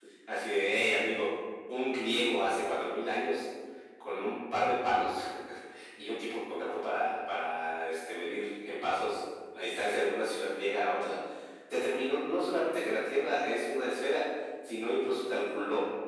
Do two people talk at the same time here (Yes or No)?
No